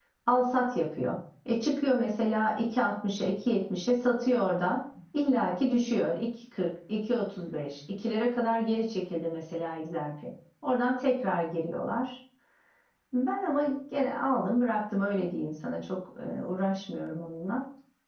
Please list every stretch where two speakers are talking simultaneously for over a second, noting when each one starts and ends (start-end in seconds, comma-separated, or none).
none